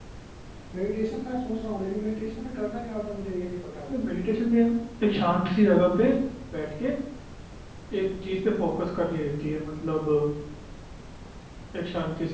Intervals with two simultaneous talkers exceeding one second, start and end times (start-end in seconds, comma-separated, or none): none